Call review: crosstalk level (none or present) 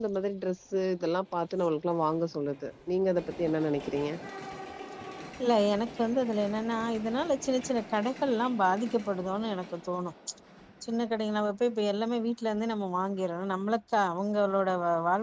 none